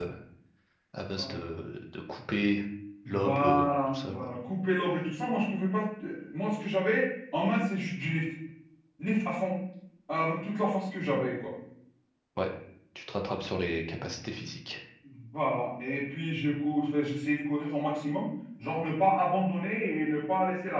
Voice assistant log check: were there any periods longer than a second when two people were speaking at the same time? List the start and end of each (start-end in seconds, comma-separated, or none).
3.1-4.3